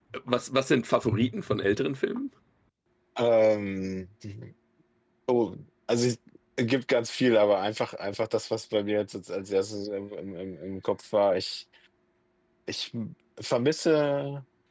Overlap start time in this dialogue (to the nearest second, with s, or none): none